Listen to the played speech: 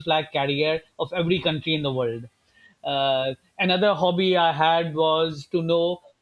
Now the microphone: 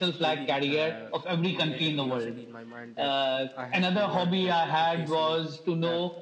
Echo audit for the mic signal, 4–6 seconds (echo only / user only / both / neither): both